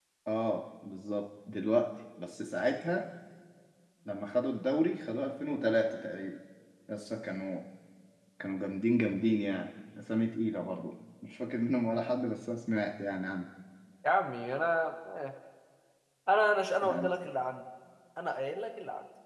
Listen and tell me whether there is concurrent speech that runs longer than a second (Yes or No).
No